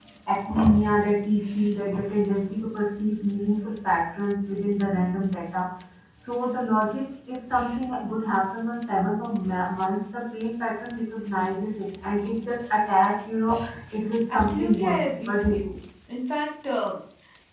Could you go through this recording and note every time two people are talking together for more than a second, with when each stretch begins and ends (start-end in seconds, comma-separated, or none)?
14.3-15.6